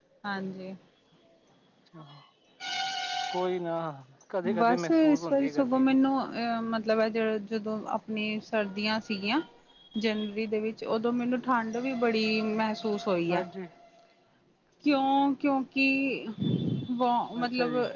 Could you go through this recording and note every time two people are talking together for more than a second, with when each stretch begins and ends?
4.6-6.0

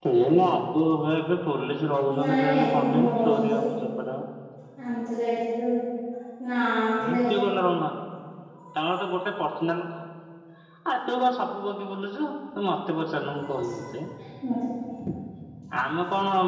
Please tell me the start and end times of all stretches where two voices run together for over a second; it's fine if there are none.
2.2-3.6

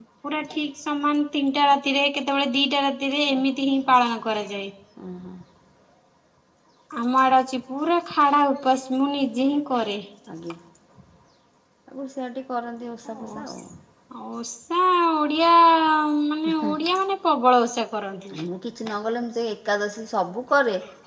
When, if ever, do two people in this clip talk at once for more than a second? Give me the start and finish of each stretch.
none

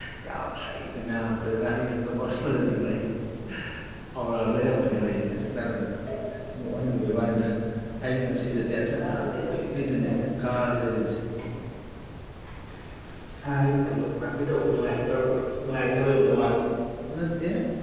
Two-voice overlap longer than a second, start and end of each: none

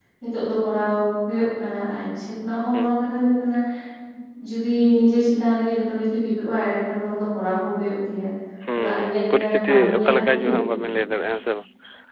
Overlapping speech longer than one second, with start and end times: 8.8-10.4

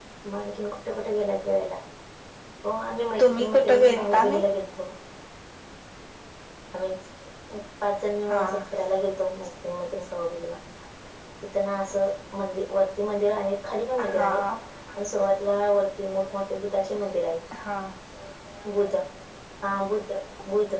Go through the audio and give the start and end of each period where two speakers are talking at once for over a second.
3.2-4.4

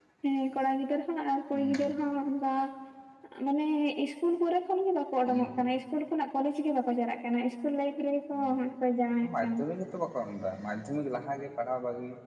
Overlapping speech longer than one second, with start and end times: none

